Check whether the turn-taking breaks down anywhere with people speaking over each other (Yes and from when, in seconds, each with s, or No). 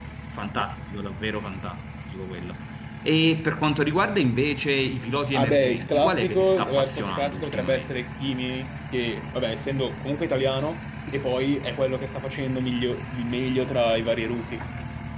Yes, from 5.3 s